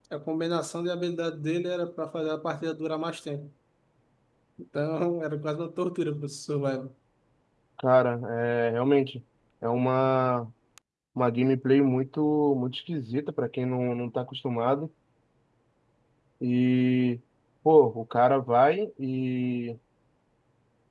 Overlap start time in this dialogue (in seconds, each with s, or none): none